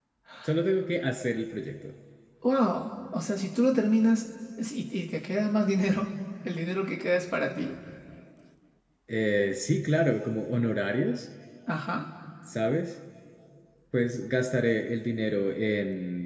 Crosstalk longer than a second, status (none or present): none